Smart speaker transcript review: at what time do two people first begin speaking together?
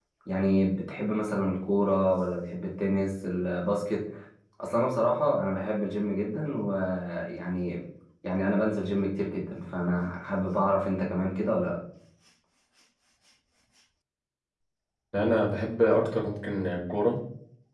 none

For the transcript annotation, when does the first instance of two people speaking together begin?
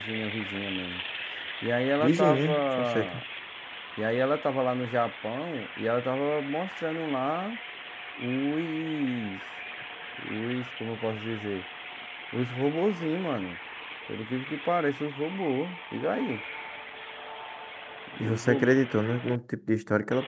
2.0 s

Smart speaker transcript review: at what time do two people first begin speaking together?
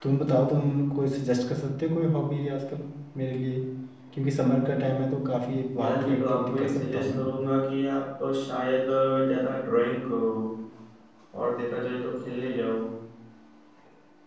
5.8 s

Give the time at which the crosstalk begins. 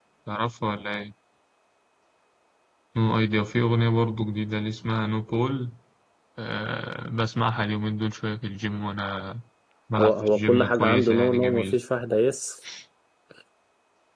10.0 s

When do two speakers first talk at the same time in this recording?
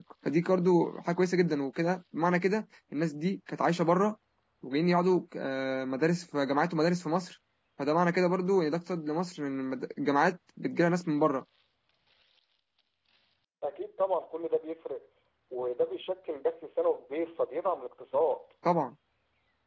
none

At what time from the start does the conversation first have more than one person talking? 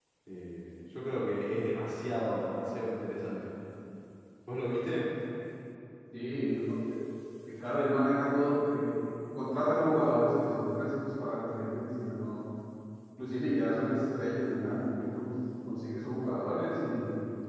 none

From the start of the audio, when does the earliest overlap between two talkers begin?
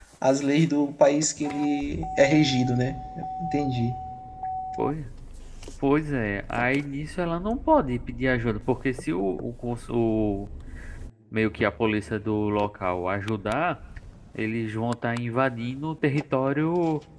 none

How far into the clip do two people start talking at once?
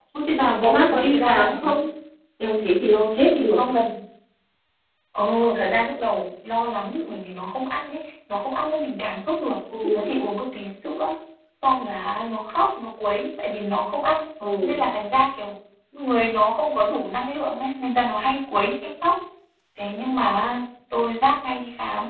0.5 s

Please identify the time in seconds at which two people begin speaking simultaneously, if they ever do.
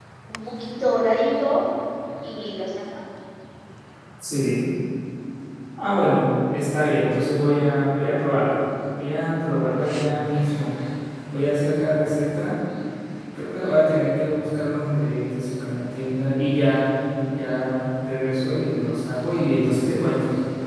none

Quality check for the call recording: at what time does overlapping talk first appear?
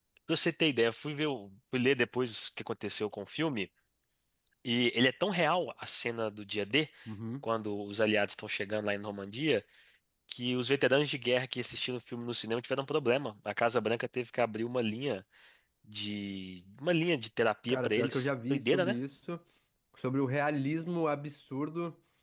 17.7 s

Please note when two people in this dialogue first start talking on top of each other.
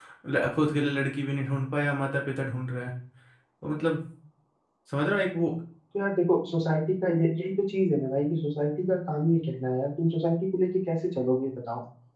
none

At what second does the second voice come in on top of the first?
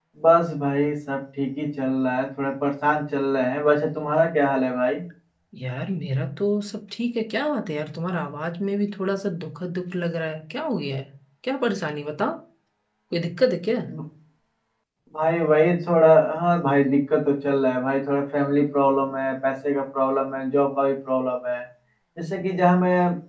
none

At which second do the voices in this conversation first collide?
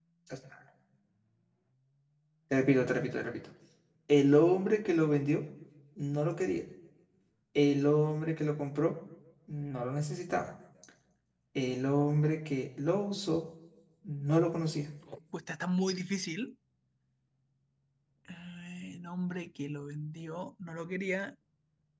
none

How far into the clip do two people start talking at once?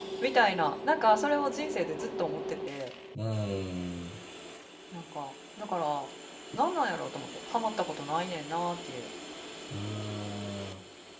none

